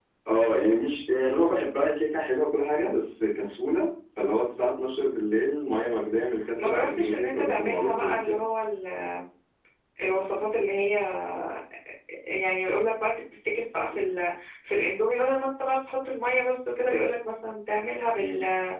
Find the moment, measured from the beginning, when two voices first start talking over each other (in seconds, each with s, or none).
6.6 s